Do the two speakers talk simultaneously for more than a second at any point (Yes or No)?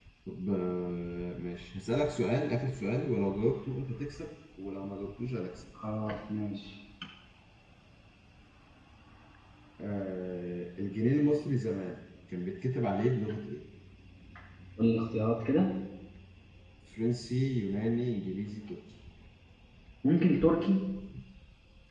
No